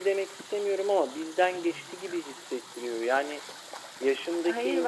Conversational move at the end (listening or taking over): listening